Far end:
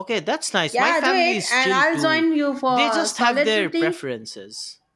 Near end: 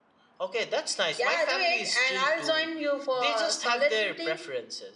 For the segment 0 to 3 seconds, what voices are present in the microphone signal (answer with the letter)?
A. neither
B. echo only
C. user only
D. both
B